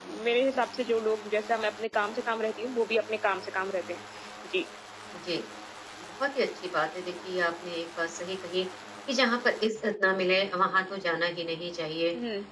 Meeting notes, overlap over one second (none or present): none